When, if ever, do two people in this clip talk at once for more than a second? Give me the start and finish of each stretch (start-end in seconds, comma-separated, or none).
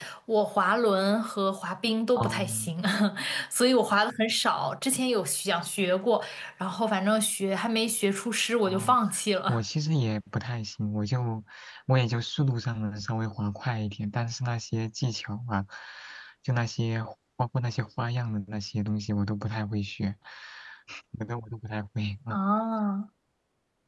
none